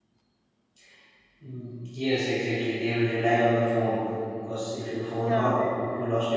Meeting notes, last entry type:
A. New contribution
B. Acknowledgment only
B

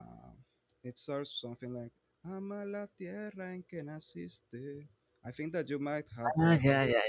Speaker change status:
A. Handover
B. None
A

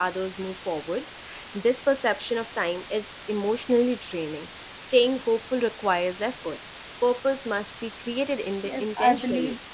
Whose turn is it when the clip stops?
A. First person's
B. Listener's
B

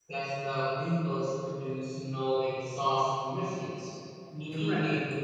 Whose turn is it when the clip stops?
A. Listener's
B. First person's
B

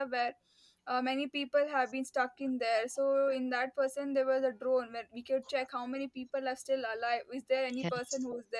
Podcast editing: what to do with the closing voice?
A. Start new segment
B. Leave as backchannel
B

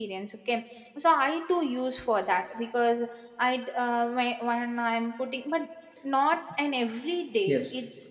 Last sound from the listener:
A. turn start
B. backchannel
B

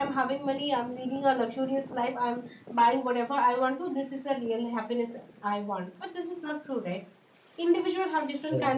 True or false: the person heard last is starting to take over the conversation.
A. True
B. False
B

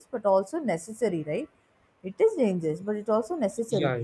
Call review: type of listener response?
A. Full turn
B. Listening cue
B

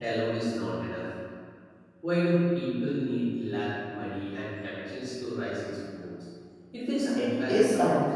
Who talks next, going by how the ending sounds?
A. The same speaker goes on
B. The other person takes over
B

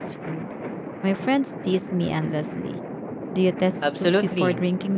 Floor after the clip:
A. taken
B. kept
A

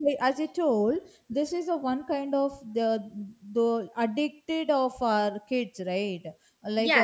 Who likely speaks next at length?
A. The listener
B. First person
B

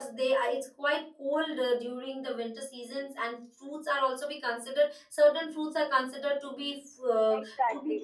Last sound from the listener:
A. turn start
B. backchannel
A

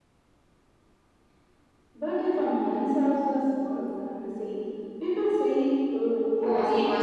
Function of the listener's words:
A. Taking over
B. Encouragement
A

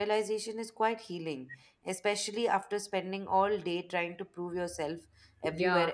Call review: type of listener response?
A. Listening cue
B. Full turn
B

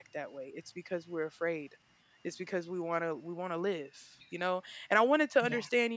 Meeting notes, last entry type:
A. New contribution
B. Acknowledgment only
B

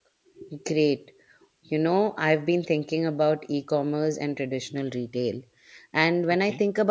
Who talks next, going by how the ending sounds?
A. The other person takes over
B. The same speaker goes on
B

